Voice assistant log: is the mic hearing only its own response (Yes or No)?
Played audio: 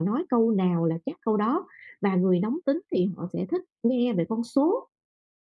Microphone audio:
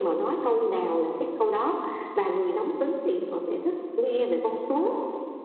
Yes